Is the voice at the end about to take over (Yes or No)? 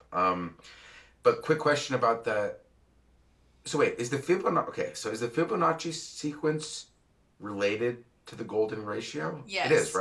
Yes